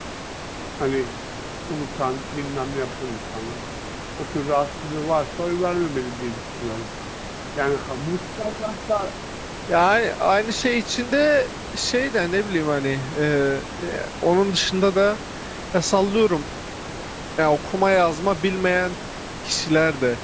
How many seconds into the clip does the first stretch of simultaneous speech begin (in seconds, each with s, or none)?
none